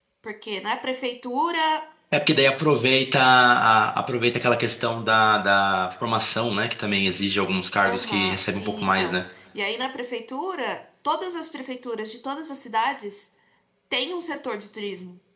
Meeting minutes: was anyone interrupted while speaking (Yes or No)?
Yes